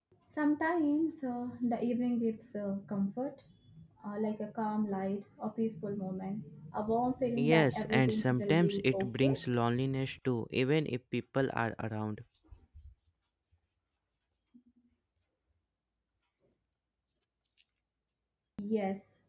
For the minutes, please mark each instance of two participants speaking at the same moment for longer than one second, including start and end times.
7.5-9.5

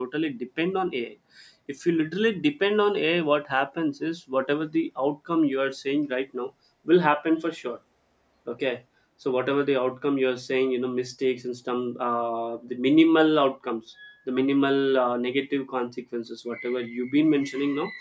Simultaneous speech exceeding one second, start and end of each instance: none

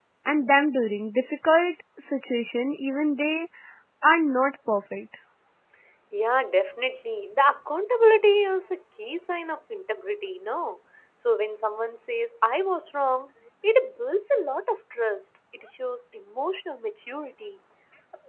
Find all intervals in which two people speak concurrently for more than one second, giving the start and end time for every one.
none

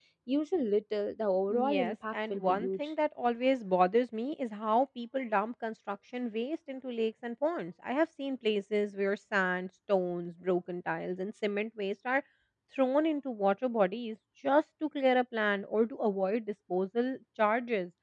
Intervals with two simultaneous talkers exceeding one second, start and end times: 1.5-2.9

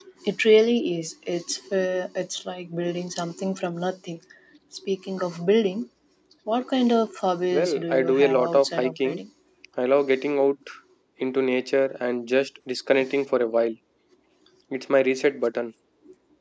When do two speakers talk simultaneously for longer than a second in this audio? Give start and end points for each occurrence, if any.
7.5-9.2

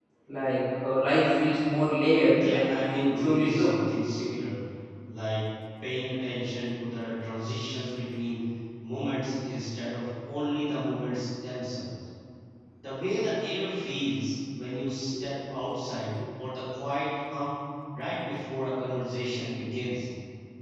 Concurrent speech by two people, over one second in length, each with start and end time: 2.5-3.7

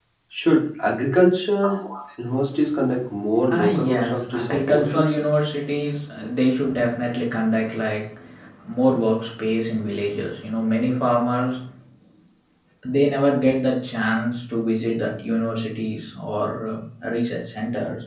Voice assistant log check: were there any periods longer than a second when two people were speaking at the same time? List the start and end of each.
3.5-5.1

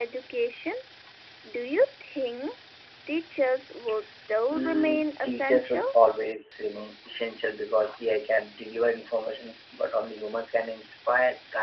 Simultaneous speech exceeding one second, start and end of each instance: 4.5-5.8

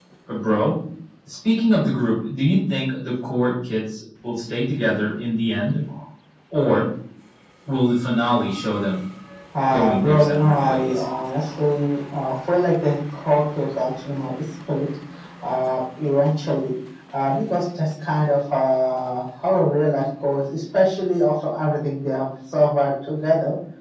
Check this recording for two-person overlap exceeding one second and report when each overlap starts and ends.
9.7-11.0

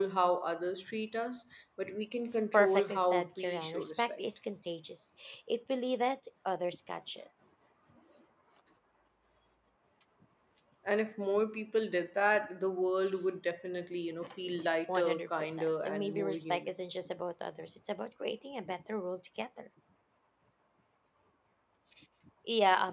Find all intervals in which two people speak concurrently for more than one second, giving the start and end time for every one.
2.5-4.2, 14.9-16.7

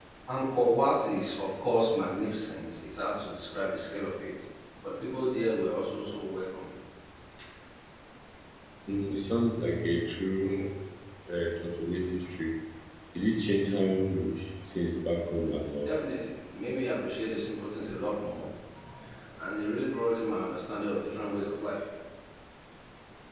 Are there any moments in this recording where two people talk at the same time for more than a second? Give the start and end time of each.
none

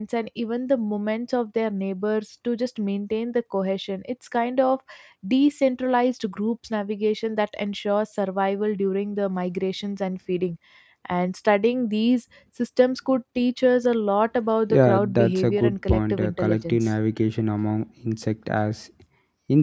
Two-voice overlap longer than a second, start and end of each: 14.7-16.9

